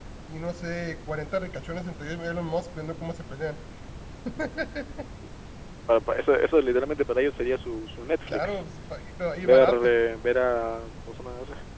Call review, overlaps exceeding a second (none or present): none